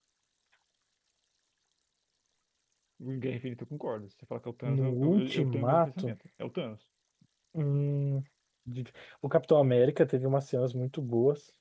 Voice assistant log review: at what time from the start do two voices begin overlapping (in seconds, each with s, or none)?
4.7 s